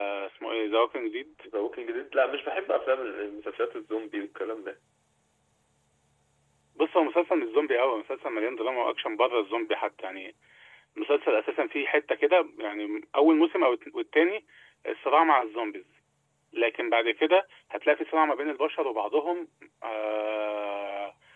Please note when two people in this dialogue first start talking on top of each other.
none

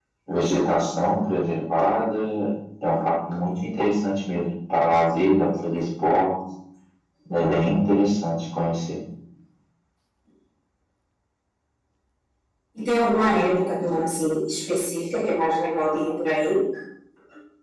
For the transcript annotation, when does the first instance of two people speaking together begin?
none

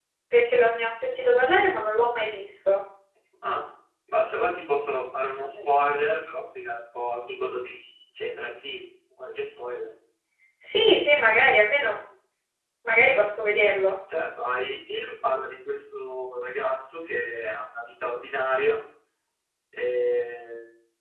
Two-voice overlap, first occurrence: none

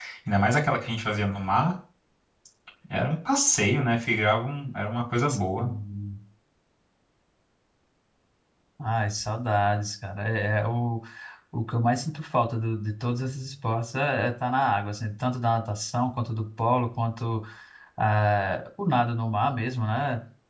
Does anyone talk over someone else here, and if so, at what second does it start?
none

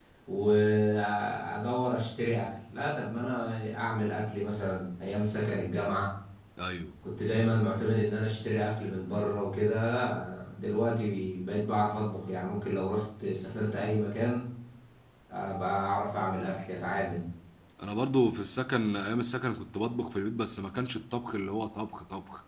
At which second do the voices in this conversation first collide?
none

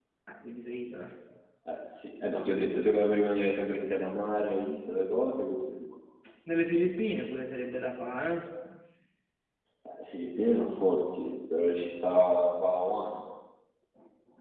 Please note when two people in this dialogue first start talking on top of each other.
none

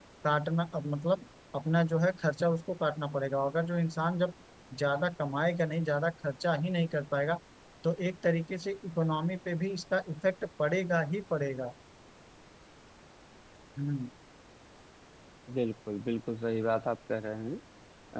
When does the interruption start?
none

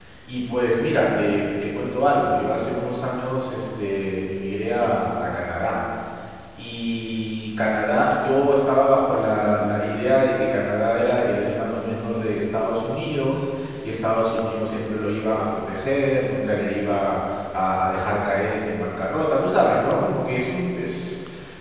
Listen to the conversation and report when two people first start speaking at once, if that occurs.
none

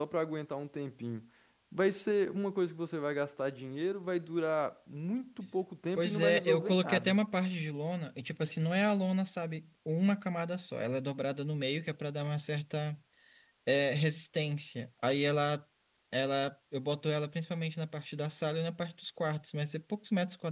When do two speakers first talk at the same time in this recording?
6 s

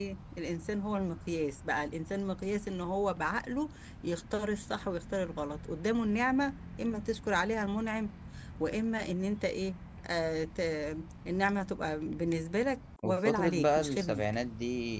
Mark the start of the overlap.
13 s

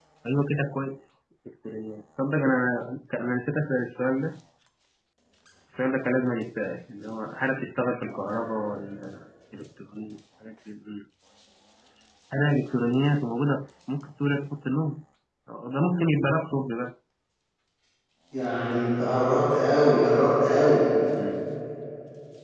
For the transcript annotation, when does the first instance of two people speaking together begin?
none

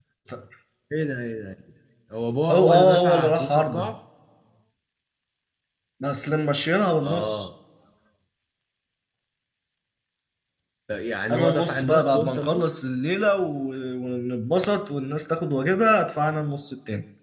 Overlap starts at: 3 s

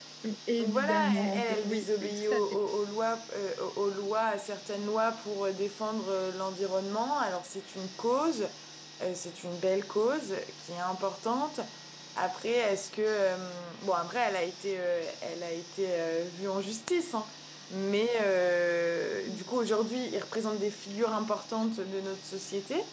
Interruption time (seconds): 1 s

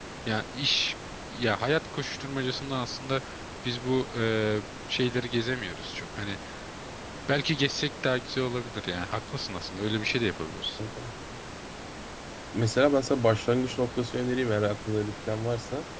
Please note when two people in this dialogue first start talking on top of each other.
none

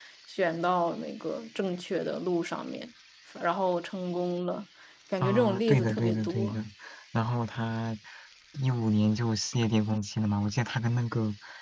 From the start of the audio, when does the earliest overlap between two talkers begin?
5 s

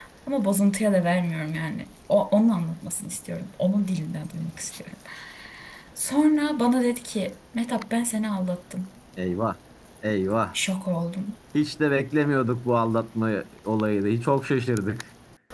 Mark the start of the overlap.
none

